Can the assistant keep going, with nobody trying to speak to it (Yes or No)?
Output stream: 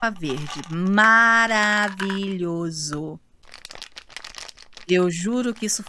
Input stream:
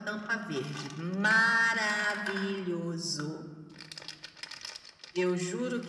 Yes